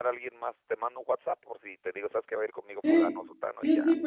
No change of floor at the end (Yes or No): No